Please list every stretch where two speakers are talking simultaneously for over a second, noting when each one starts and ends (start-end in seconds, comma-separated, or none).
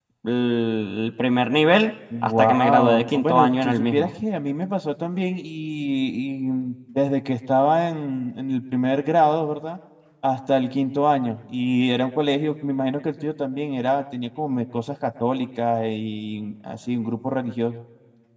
2.2-4.1